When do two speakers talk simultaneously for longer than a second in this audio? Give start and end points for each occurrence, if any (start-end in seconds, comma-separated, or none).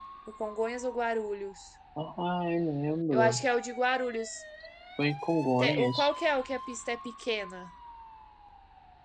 none